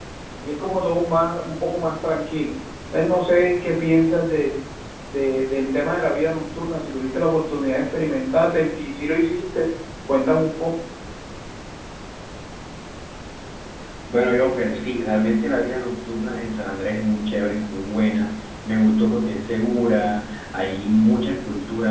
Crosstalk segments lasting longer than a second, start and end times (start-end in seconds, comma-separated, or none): none